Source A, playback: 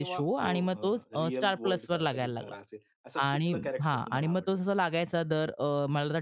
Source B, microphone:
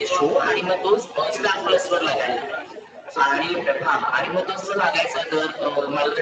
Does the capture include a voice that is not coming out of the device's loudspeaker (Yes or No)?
No